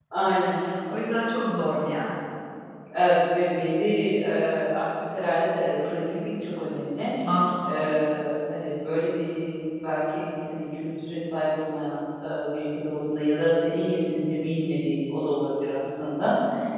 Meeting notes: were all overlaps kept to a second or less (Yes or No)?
Yes